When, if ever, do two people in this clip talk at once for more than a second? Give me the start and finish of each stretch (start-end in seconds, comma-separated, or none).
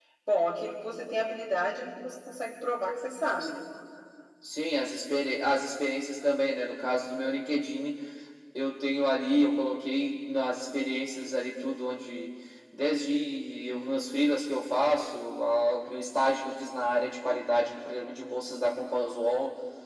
none